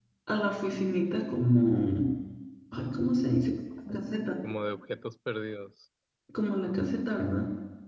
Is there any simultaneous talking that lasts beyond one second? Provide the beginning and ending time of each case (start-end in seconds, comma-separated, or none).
none